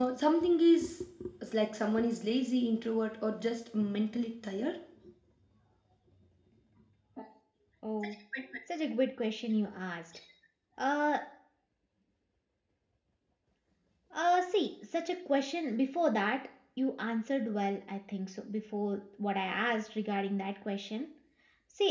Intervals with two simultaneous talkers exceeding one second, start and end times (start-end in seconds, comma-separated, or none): none